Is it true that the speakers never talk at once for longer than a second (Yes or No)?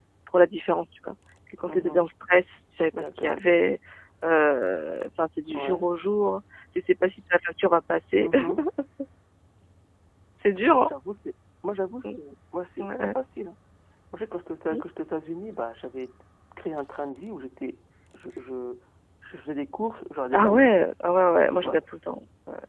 Yes